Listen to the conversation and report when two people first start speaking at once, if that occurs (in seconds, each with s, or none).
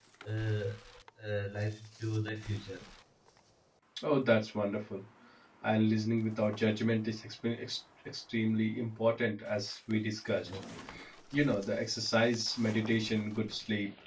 none